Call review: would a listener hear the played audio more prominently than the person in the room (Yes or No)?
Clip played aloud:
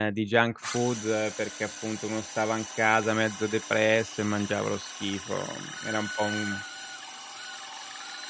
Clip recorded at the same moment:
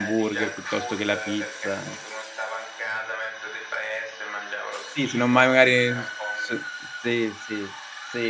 No